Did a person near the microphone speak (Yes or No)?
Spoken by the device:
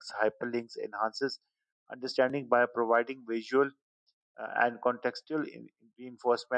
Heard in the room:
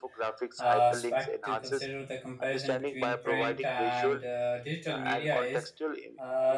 Yes